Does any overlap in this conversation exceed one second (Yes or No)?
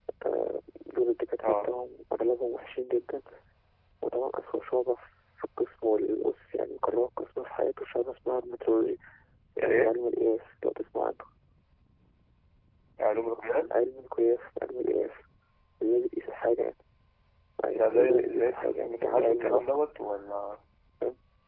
Yes